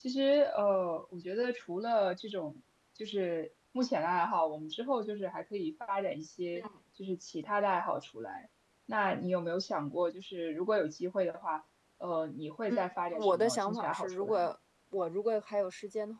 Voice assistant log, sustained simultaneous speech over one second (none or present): present